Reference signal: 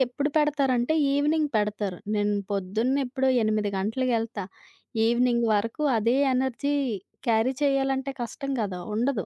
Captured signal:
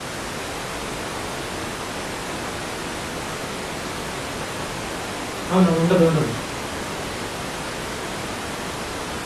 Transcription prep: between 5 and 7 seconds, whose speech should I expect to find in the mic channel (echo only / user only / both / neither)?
user only